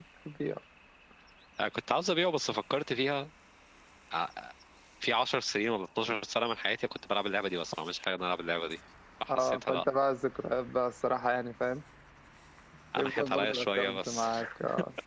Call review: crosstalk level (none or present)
present